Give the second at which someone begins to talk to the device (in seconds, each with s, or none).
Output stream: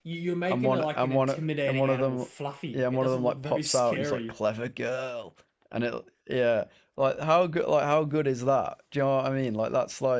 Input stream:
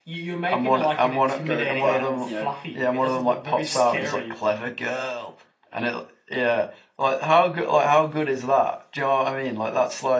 1.4 s